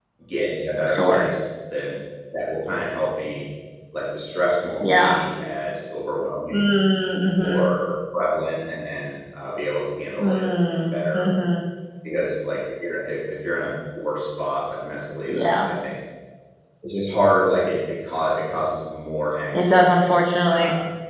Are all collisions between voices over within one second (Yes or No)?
Yes